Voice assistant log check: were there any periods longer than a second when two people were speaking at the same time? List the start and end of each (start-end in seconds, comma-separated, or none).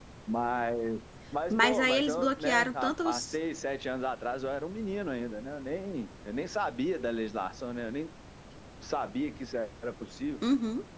1.5-3.4